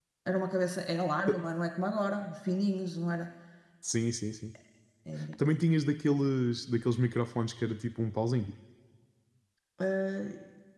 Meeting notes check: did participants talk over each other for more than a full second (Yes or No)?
No